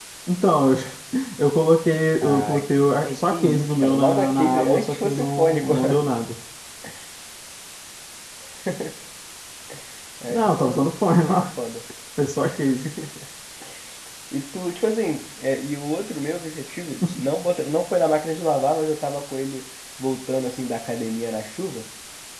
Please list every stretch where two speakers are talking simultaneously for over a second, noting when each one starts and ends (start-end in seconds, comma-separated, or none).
3.0-5.7